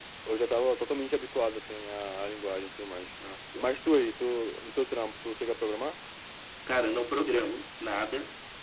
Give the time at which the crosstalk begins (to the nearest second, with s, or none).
none